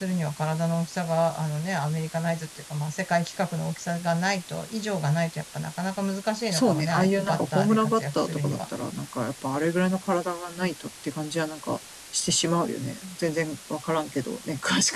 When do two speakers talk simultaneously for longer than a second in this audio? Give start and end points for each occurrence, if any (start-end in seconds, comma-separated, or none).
6.5-8.6